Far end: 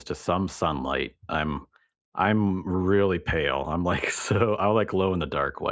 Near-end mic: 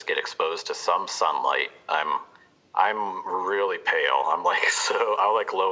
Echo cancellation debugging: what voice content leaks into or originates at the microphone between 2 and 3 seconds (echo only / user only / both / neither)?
echo only